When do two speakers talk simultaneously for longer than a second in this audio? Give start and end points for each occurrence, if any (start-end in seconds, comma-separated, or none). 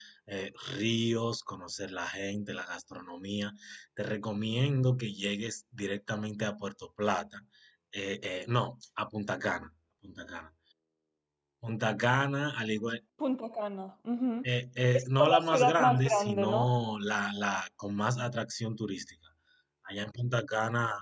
14.9-16.7